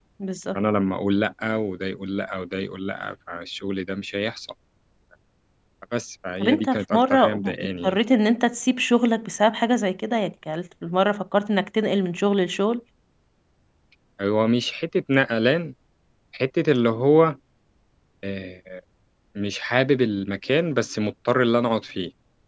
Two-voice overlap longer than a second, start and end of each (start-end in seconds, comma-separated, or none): 6.4-8.0